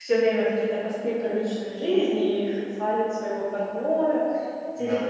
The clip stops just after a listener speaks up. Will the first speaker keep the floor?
Yes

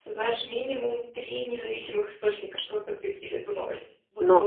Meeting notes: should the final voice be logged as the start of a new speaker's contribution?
Yes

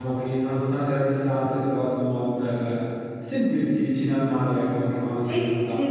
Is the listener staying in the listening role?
No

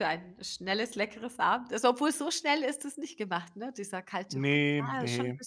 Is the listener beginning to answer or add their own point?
Yes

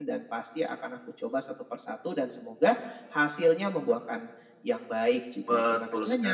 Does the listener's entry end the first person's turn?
Yes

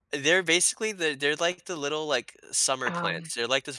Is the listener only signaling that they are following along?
Yes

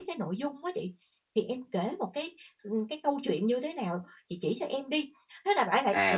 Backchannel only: No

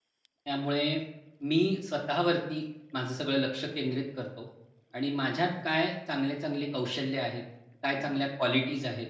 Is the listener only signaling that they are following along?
Yes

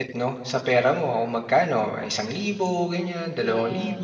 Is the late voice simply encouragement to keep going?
No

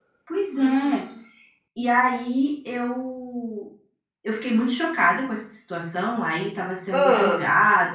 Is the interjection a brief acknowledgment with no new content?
Yes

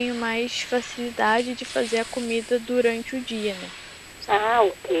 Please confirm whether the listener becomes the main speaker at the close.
Yes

